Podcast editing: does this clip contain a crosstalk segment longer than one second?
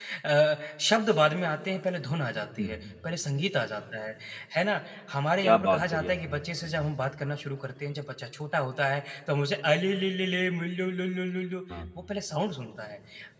Yes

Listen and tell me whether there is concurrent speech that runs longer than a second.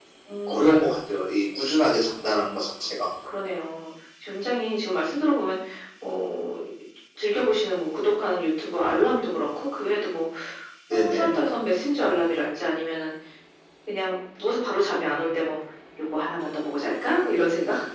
No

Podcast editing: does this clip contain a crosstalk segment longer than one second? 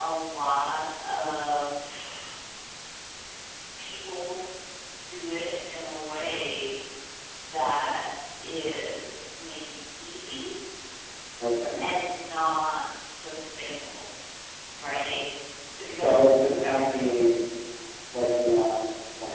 No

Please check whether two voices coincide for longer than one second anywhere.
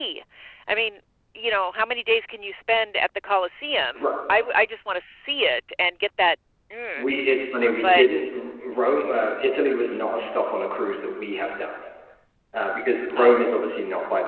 No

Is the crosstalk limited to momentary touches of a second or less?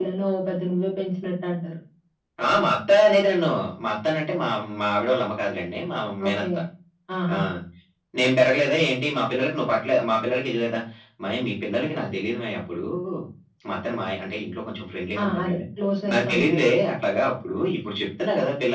Yes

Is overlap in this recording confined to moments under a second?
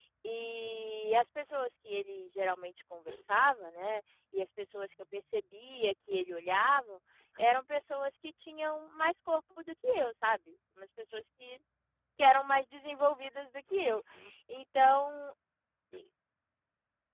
Yes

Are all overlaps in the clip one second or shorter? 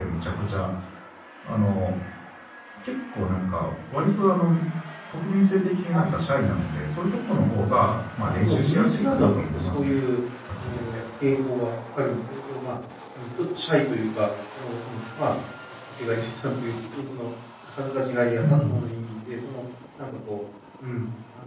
No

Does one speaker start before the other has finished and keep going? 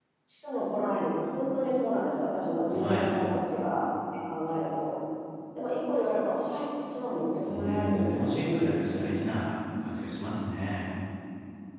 Yes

